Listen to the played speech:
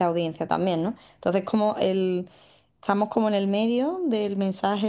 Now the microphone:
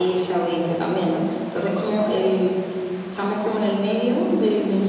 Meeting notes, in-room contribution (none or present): none